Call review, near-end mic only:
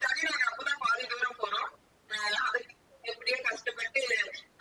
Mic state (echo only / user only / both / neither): echo only